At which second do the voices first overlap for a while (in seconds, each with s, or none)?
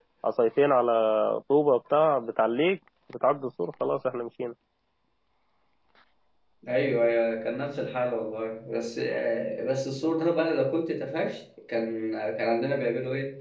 none